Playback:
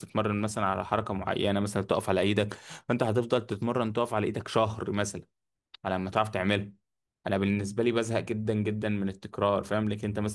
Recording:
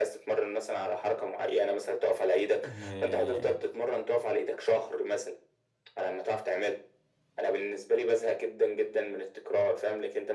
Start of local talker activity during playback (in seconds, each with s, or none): 2.6 s